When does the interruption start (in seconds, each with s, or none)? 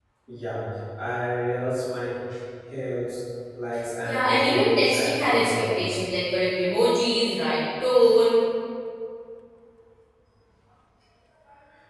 4.0 s